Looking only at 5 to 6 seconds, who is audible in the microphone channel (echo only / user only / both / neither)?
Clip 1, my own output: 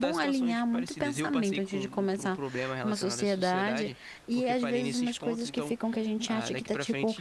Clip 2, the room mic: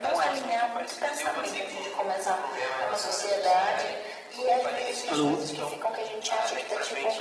both